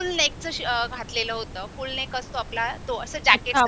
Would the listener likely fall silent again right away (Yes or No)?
No